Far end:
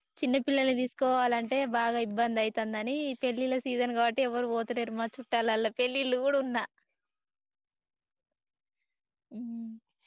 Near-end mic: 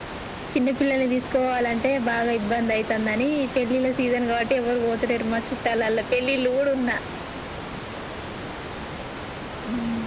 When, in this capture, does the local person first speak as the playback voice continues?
none

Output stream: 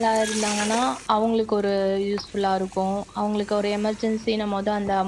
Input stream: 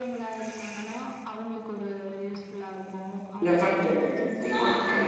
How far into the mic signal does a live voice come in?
3.5 s

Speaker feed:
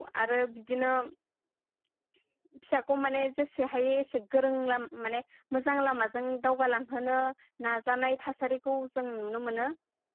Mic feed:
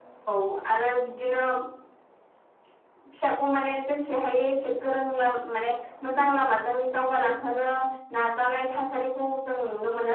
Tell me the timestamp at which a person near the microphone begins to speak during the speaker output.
none

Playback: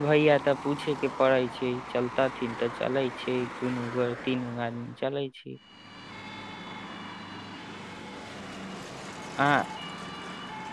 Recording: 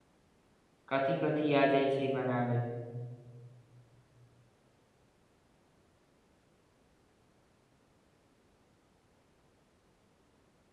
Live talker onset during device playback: 0.9 s

